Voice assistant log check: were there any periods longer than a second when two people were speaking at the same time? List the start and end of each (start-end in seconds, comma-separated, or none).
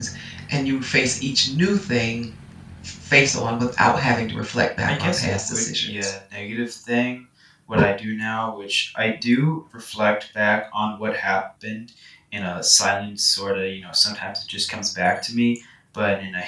4.9-6.1